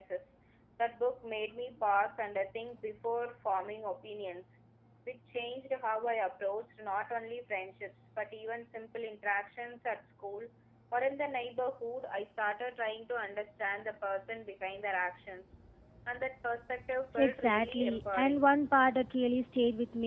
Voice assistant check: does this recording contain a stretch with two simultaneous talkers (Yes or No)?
Yes